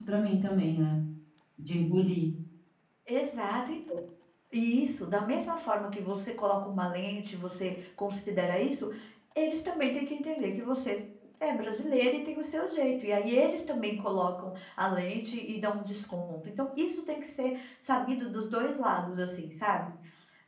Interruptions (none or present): none